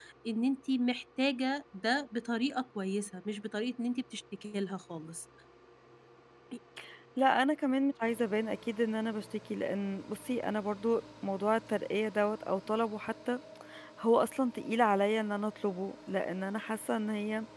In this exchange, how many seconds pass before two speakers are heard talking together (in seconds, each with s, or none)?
none